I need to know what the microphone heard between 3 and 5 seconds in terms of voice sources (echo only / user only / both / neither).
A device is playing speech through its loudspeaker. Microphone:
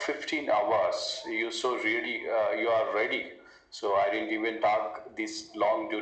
echo only